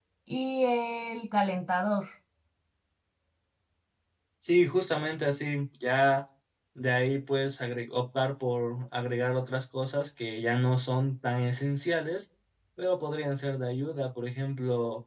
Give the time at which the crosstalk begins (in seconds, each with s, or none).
none